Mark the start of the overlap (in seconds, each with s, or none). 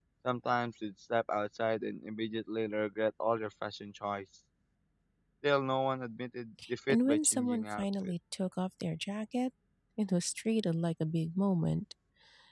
6.9 s